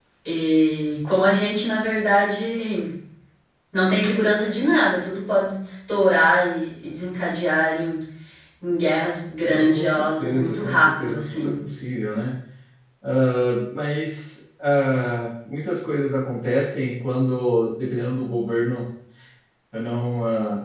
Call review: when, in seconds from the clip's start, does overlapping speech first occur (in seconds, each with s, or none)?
9.5 s